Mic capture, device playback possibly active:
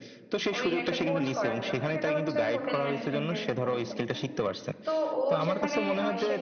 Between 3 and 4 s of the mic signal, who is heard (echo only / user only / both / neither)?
both